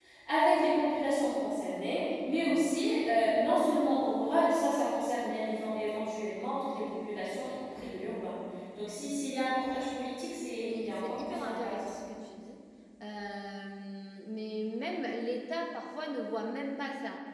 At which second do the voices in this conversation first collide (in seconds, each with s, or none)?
10.6 s